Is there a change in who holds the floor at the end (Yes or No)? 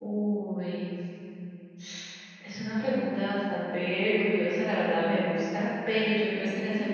No